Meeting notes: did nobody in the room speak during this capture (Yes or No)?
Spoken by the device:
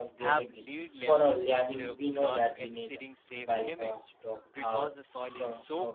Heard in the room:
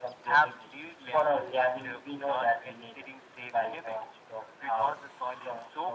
Yes